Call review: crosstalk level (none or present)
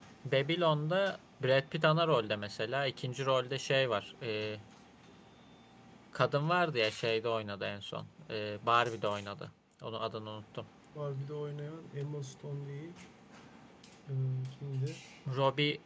none